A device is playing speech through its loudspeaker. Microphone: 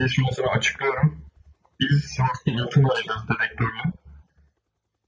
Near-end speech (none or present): none